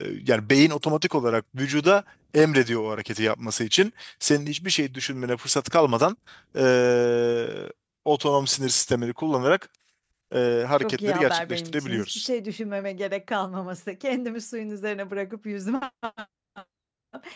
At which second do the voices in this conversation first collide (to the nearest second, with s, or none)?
11 s